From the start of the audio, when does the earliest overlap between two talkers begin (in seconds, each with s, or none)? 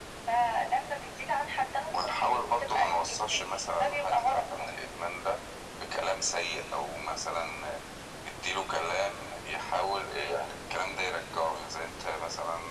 1.9 s